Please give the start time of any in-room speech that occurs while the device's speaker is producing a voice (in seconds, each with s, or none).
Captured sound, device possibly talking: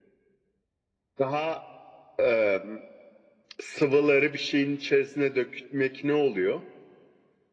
none